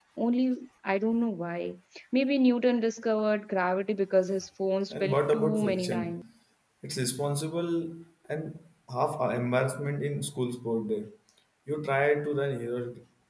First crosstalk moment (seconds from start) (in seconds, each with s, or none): 4.9 s